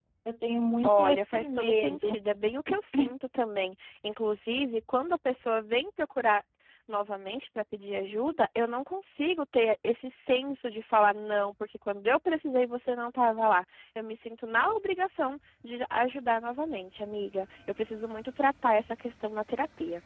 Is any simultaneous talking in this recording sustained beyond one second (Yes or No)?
Yes